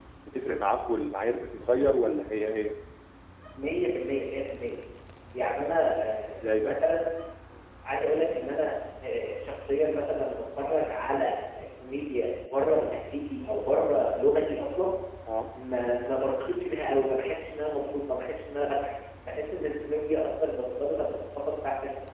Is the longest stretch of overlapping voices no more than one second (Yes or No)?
Yes